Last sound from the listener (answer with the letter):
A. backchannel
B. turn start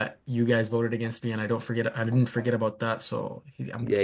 B